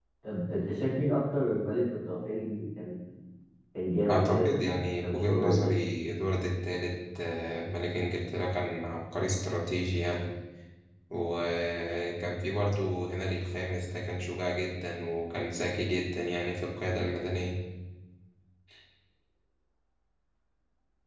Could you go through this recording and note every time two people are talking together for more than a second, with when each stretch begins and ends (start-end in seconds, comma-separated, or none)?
4.1-5.8